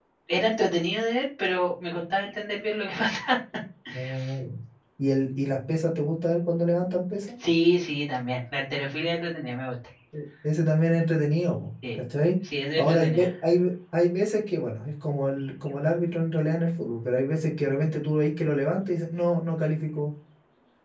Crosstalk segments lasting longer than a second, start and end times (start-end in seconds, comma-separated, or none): none